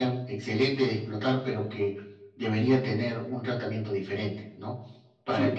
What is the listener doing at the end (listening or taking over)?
listening